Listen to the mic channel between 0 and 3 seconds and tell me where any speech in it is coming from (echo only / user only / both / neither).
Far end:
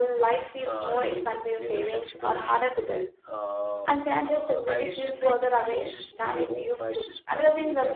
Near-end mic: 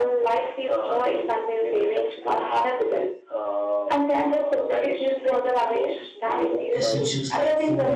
echo only